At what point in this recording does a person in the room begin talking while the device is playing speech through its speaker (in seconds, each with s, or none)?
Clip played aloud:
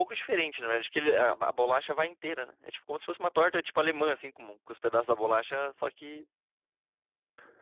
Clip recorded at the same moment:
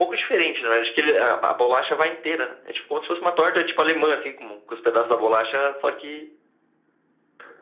none